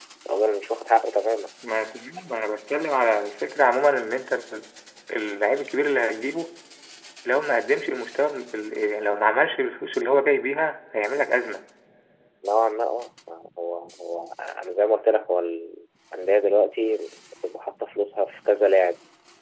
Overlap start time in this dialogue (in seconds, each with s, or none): none